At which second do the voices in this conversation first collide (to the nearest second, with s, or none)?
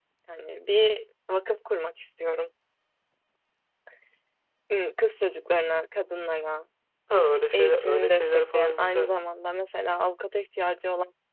8 s